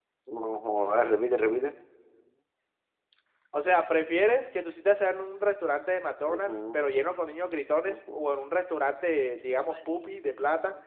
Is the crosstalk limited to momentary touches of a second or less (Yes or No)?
Yes